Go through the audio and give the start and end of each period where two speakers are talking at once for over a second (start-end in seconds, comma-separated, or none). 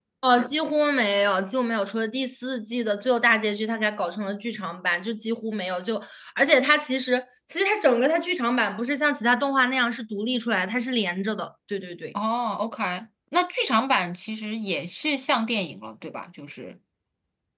none